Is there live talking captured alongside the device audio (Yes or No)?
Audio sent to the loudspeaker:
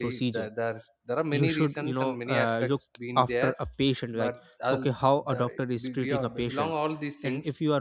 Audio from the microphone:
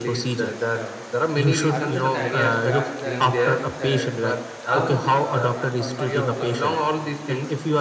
Yes